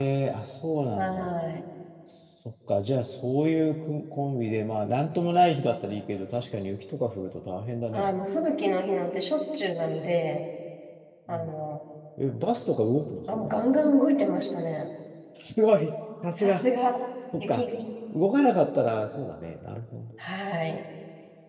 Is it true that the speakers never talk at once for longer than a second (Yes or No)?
Yes